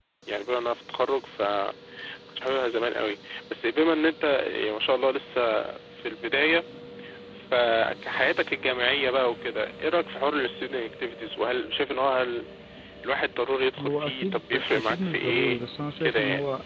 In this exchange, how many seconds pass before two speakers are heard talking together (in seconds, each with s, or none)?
13.8 s